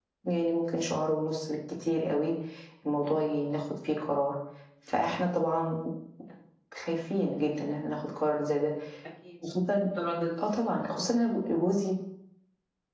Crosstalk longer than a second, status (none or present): none